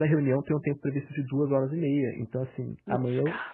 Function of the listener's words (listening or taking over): listening